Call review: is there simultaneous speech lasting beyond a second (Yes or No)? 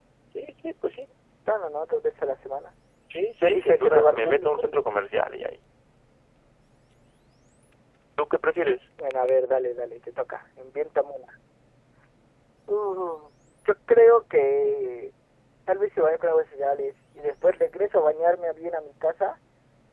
Yes